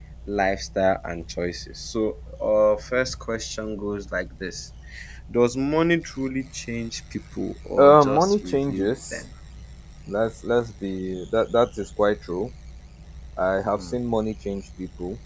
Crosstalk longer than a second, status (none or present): present